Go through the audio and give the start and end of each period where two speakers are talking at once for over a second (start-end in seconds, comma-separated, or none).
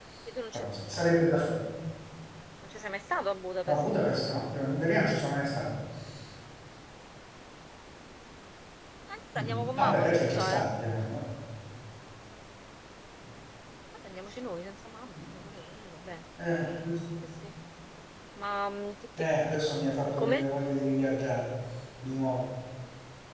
9.4-10.7